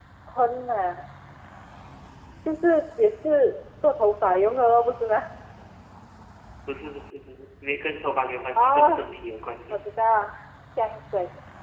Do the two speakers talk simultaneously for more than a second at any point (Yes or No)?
No